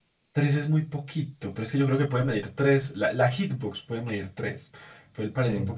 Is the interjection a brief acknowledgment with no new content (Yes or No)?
Yes